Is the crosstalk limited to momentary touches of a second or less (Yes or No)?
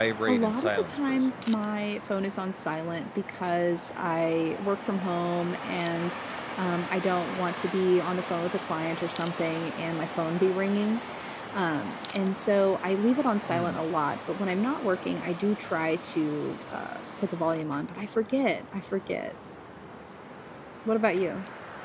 No